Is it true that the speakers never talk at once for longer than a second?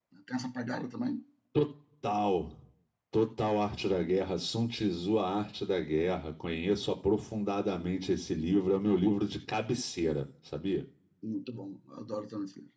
Yes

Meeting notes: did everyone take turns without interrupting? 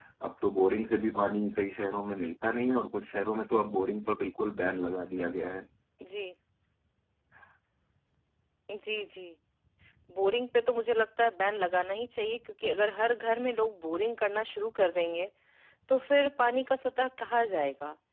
Yes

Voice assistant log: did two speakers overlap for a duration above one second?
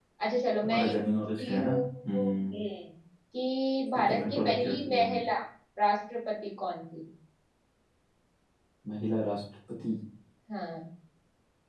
Yes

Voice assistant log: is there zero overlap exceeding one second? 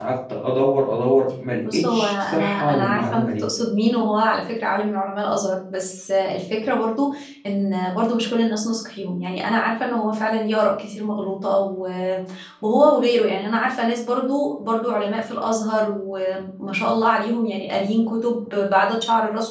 No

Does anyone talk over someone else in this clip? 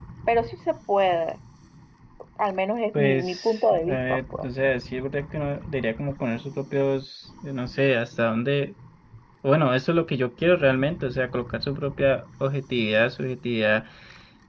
Yes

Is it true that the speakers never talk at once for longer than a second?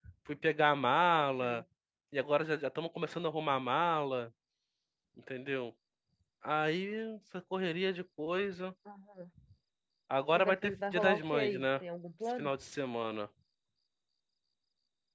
No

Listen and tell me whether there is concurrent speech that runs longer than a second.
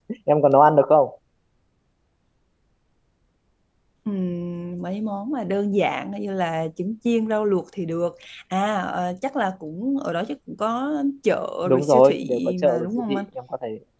Yes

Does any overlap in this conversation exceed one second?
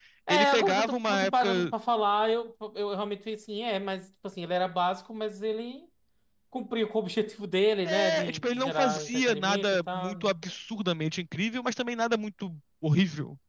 Yes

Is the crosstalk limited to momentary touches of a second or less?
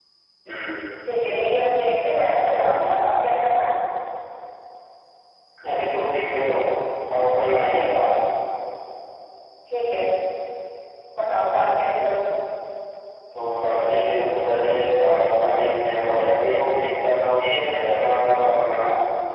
Yes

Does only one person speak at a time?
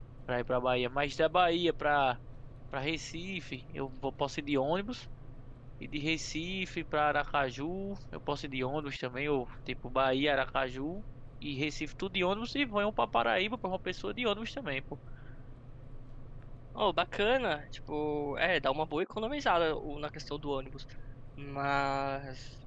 Yes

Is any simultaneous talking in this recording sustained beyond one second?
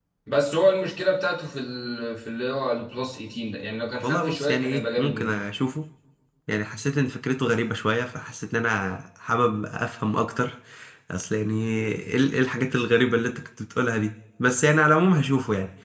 Yes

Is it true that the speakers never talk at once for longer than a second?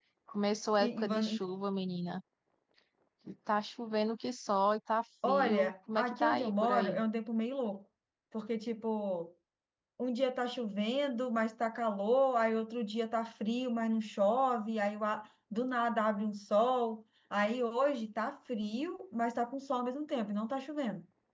No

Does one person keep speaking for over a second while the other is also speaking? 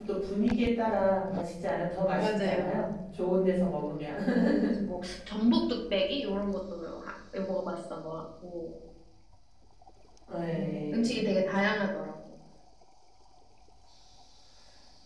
Yes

